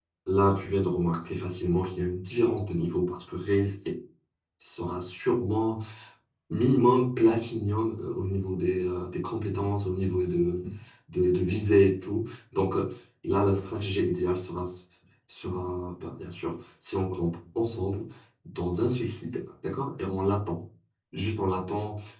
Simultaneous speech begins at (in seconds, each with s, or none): none